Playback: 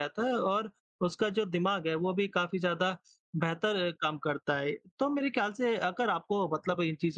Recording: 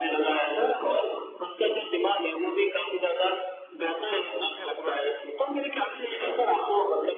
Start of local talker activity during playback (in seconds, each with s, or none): 4.0 s